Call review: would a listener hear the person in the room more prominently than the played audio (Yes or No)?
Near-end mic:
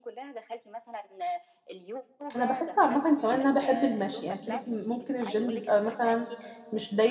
Yes